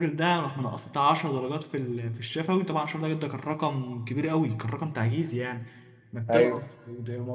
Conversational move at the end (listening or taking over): listening